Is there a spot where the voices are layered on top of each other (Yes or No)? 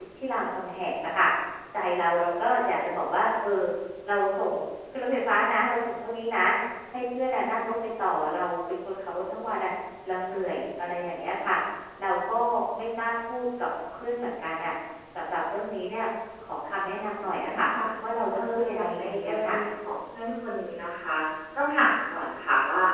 Yes